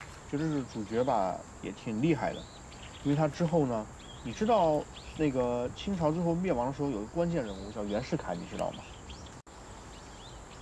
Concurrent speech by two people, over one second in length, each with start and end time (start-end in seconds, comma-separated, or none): none